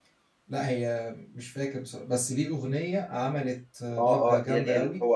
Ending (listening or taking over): taking over